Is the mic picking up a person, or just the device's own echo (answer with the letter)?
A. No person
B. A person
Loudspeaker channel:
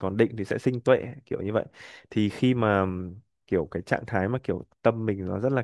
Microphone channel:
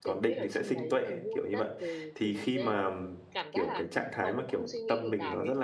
B